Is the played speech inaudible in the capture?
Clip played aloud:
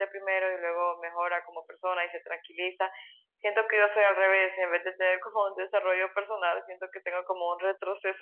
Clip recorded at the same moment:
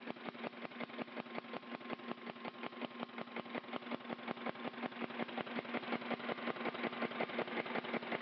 Yes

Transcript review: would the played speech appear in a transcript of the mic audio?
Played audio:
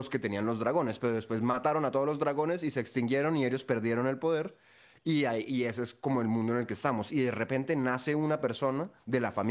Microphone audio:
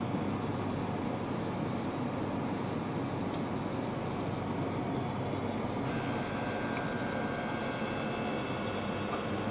No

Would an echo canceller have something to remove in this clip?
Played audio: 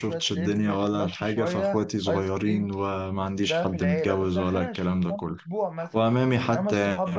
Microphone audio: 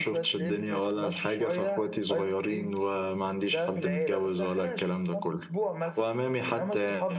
Yes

